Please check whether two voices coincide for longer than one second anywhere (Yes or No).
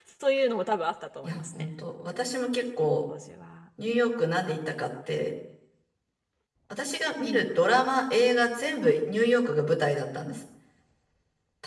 No